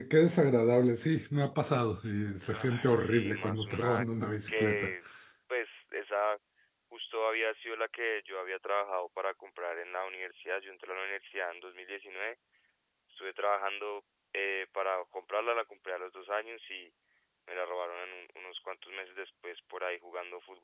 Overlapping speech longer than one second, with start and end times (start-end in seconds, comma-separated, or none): 2.5-4.0